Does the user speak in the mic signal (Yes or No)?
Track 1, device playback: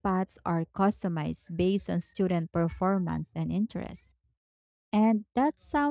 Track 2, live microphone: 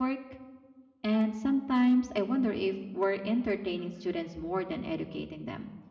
Yes